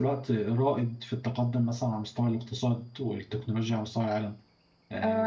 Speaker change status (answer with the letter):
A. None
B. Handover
B